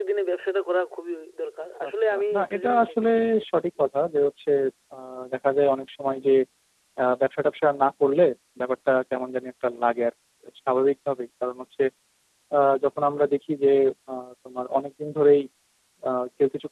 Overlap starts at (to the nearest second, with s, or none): 2 s